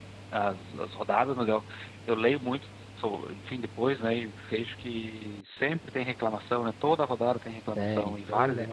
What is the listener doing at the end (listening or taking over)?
taking over